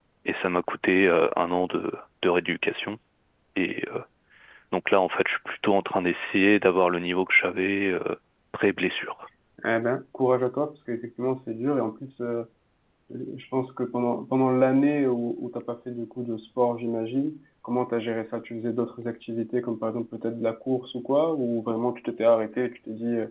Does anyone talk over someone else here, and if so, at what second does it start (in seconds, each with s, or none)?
none